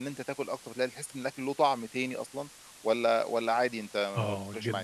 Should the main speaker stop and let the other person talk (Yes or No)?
Yes